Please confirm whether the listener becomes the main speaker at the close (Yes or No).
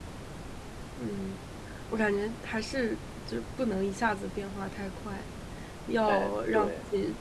No